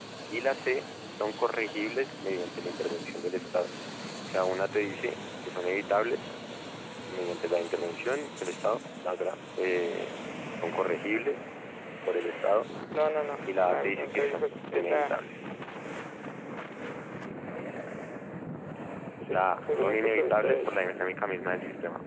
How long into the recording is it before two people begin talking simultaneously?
13.6 s

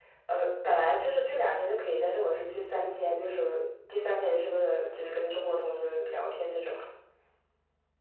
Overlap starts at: none

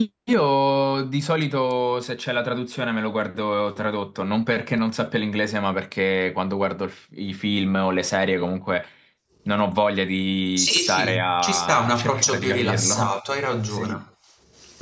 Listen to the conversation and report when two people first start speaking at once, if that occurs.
10.6 s

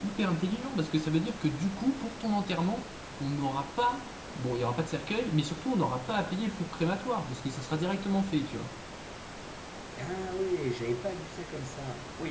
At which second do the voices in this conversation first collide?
none

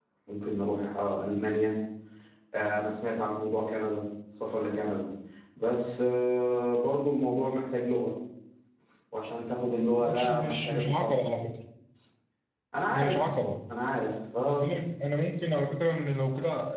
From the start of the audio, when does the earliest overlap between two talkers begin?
10.0 s

